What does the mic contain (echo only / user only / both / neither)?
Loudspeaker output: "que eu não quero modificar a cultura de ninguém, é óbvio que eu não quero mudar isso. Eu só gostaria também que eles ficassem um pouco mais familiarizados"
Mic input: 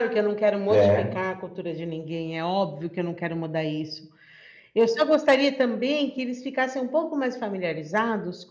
both